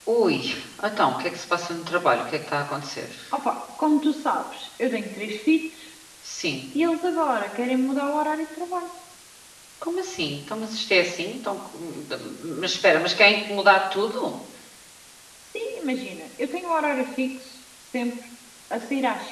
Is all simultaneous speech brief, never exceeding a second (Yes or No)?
Yes